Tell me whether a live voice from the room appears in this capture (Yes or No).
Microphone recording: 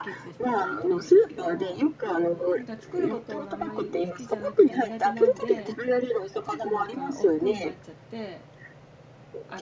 Yes